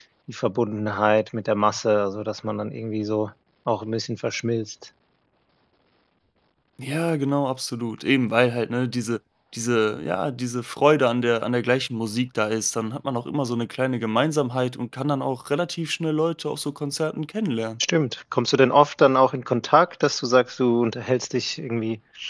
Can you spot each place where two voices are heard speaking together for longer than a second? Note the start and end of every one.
none

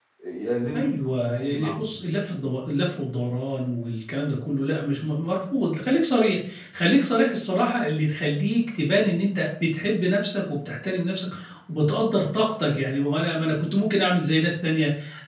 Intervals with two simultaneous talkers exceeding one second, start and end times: 0.7-2.0

